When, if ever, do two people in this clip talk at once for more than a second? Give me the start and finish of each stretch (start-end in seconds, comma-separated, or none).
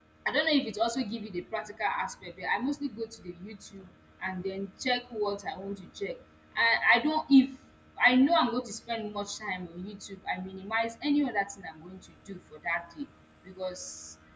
none